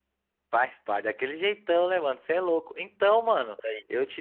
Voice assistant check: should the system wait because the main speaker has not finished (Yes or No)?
Yes